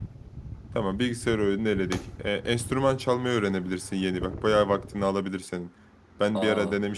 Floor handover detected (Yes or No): No